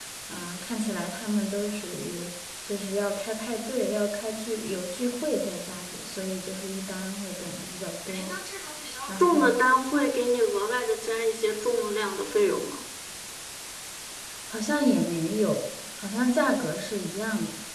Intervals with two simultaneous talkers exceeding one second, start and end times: none

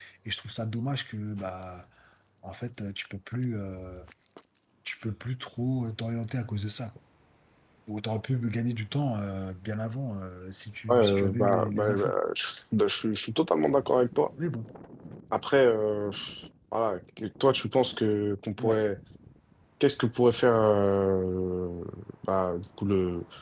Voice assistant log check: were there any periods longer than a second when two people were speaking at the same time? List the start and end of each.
10.9-12.2

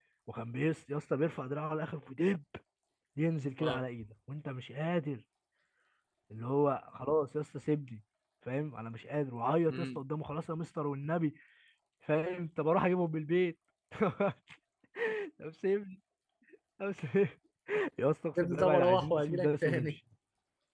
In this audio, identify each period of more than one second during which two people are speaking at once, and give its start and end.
18.4-20.0

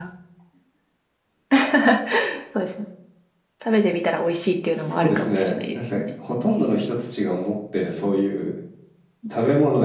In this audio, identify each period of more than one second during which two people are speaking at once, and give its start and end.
4.7-6.0

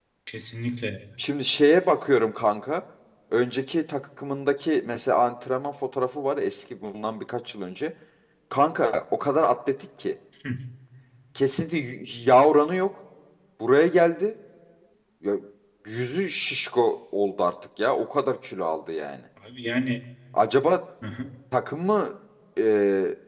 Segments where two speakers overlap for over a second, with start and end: none

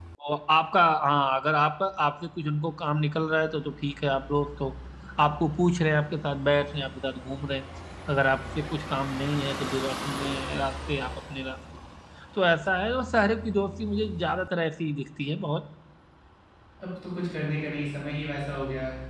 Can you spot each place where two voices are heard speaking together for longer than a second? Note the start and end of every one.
none

